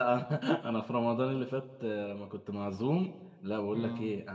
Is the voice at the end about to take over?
No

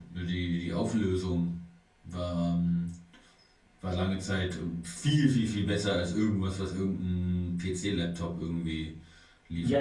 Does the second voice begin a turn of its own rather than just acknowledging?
Yes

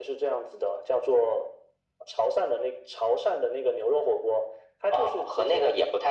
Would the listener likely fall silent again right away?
No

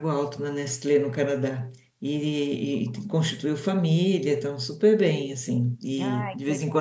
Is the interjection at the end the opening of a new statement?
No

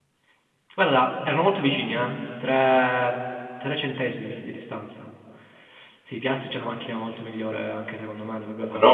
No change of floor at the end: Yes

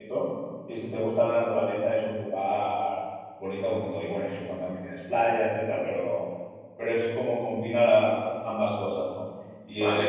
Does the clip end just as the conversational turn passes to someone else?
Yes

